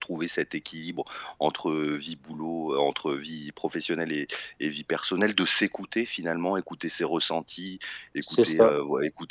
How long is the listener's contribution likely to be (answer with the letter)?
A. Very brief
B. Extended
A